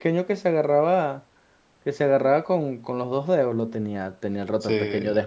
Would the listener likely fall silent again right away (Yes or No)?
Yes